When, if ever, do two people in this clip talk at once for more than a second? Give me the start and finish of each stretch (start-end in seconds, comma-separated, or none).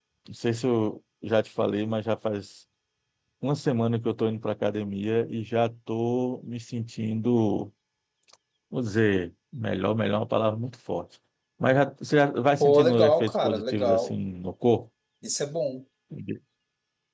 12.6-14.2